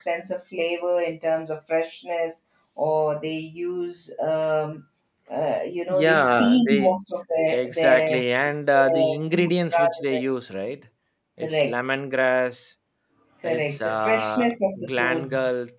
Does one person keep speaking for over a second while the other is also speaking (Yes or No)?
Yes